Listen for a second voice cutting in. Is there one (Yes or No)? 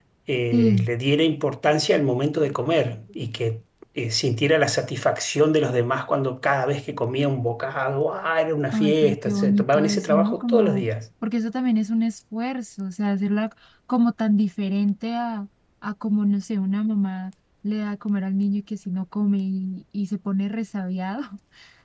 Yes